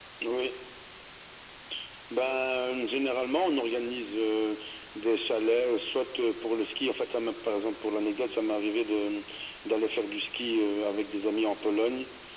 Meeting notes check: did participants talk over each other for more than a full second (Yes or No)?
No